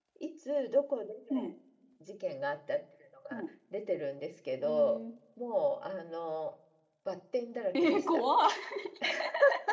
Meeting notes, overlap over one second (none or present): none